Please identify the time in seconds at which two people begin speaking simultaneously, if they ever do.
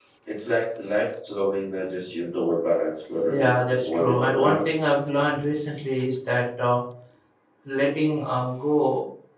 3 s

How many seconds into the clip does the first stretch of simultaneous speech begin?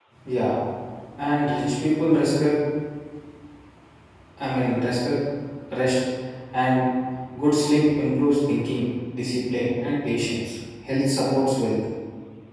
none

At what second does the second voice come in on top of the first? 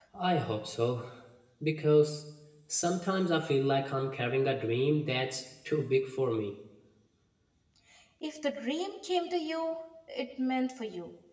none

